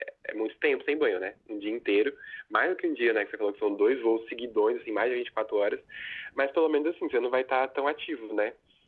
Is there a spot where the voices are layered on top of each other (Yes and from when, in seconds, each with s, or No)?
No